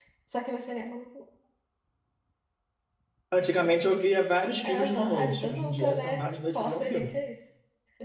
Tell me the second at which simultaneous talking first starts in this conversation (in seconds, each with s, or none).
4.6 s